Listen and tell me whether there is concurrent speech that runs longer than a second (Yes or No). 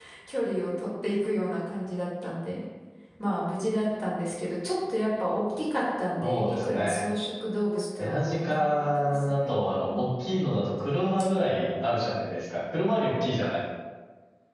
Yes